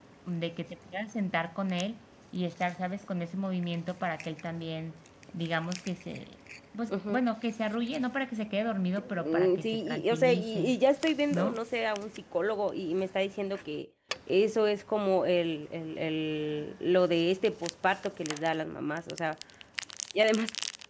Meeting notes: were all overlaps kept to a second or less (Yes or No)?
No